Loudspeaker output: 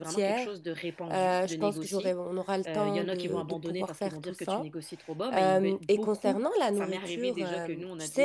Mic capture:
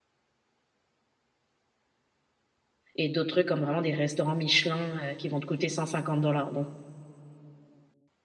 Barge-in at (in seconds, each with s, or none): 3.0 s